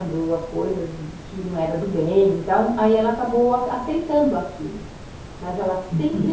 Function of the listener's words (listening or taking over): listening